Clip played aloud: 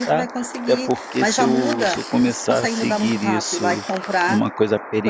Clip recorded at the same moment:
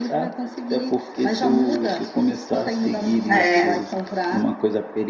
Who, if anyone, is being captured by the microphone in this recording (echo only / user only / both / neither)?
both